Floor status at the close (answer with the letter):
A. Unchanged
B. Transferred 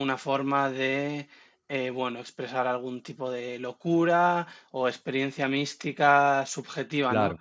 A